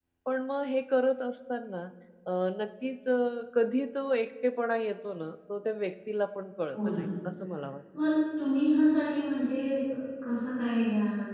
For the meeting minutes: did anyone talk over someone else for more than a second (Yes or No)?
No